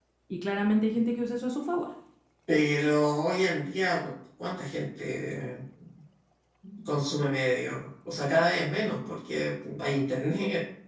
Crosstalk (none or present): none